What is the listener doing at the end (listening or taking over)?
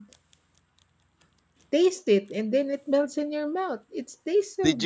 taking over